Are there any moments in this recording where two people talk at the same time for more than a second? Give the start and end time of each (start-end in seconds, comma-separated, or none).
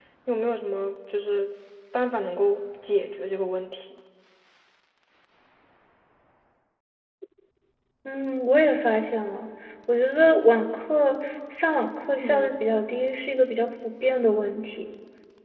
none